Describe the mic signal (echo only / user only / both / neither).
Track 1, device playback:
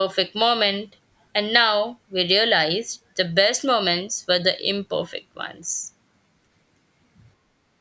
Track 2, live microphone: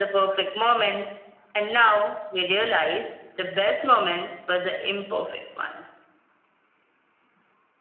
echo only